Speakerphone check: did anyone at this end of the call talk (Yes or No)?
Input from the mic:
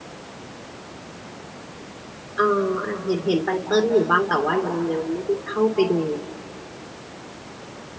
Yes